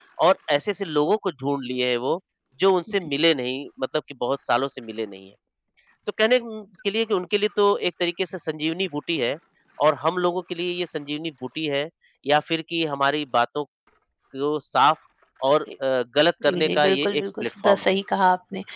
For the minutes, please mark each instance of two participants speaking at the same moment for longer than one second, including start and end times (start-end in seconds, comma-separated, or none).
16.4-17.9